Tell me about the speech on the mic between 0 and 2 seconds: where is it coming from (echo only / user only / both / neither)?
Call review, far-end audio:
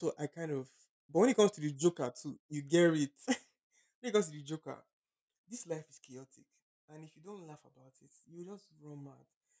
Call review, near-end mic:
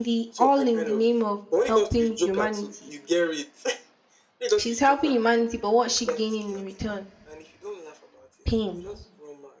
both